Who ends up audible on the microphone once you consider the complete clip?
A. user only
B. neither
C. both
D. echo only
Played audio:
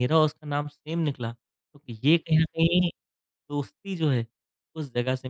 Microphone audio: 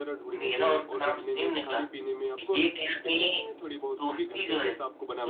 C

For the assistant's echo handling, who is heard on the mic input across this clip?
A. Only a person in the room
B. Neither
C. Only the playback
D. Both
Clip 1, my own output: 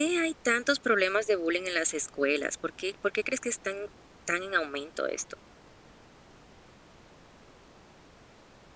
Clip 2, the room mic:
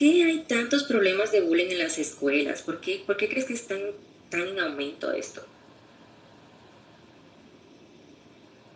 C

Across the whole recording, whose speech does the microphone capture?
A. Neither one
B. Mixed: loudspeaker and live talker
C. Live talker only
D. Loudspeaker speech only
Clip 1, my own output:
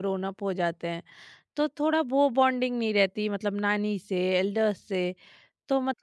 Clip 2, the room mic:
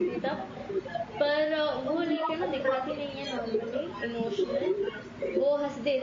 B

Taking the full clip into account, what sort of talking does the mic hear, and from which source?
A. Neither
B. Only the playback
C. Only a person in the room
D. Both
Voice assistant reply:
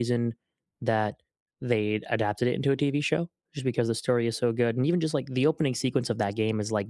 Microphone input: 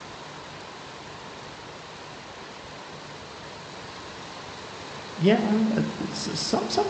C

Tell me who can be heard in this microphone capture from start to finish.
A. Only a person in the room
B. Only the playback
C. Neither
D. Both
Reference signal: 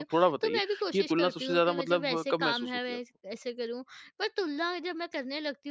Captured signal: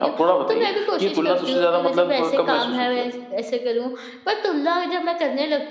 B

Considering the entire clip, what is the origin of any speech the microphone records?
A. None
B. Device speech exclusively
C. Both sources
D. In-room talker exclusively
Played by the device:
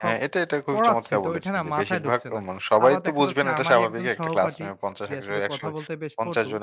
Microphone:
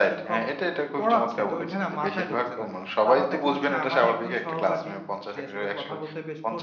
B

